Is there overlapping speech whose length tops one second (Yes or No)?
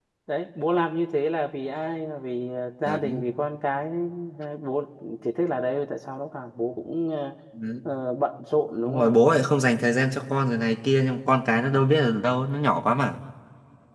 No